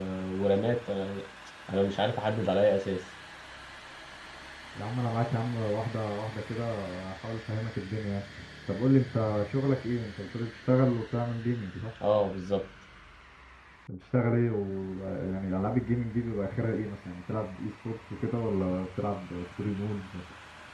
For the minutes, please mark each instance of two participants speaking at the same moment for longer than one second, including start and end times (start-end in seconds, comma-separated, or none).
none